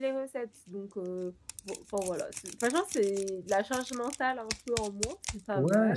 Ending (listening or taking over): taking over